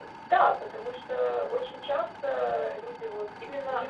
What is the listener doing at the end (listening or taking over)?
taking over